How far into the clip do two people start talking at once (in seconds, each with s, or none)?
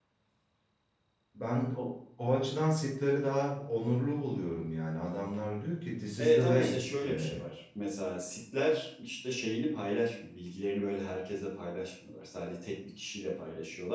6.2 s